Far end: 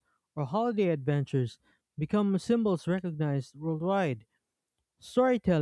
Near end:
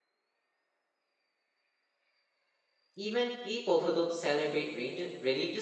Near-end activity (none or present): present